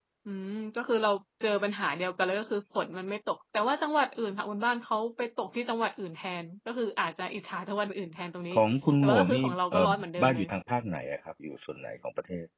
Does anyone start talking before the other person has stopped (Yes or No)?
Yes